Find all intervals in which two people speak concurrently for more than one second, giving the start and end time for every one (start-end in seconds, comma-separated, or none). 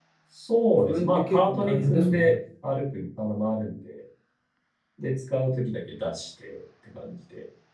0.8-2.4